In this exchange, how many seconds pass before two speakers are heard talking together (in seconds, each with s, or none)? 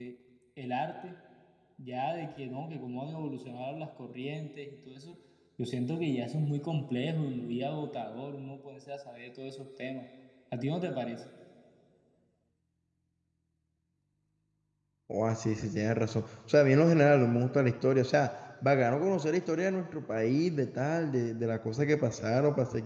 none